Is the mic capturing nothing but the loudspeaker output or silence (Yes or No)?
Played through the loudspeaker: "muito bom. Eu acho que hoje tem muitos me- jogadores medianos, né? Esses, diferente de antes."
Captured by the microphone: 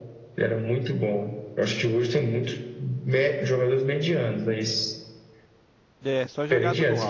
No